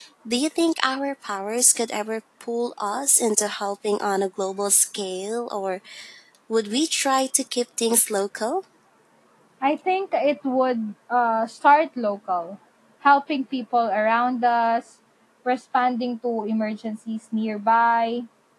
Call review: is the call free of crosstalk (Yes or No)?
Yes